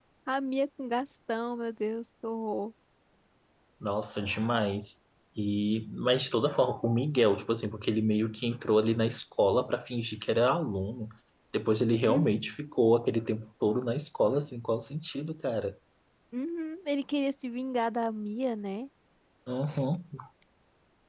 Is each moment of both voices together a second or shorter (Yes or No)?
Yes